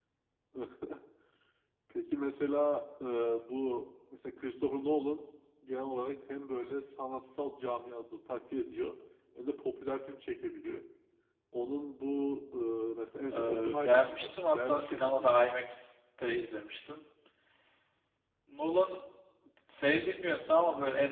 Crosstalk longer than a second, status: present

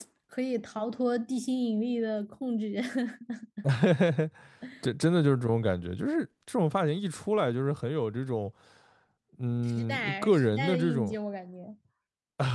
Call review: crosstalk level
present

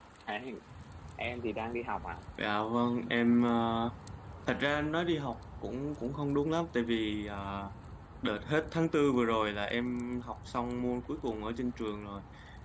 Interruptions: none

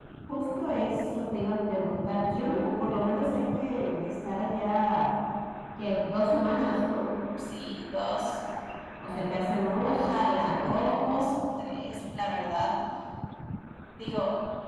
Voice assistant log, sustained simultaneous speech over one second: present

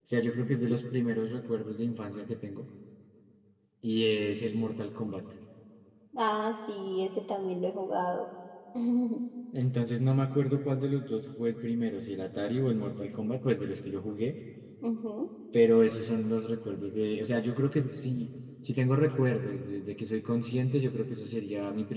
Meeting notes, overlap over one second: none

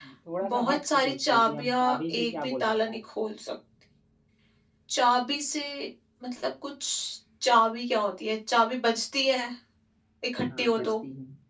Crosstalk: present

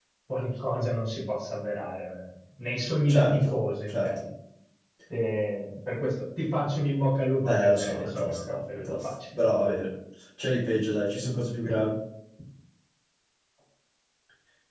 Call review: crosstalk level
present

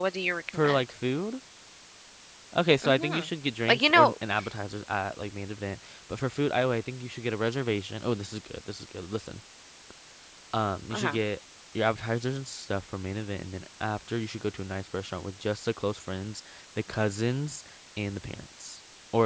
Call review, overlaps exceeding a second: none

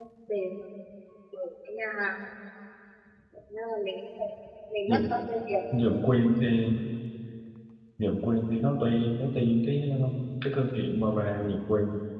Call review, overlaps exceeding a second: none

